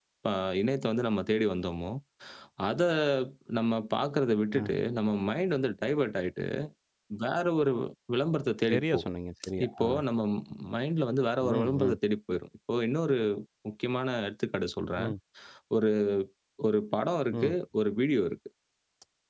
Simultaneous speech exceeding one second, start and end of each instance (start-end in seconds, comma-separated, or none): none